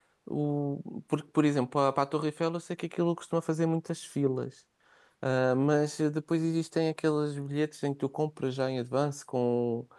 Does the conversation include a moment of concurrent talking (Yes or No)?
No